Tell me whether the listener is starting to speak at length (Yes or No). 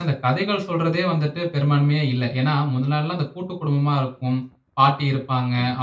No